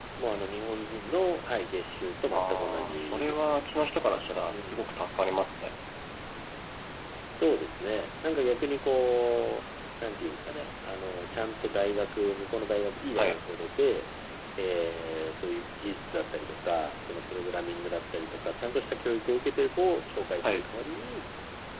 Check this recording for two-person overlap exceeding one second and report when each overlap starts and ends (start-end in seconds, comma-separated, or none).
2.3-3.6